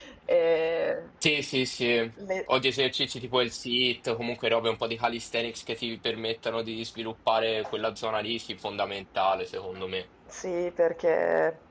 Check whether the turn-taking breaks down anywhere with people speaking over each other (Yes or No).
No